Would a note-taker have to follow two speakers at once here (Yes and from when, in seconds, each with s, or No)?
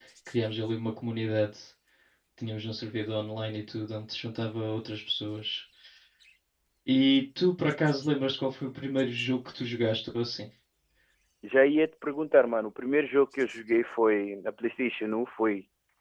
No